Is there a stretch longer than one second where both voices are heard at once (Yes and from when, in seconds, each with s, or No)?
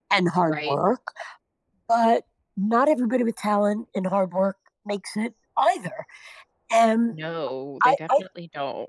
No